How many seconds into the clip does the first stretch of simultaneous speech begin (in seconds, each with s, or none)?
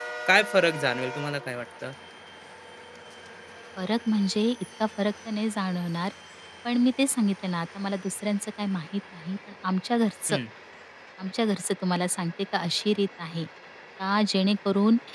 none